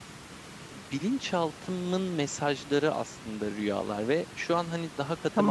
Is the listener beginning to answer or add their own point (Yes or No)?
No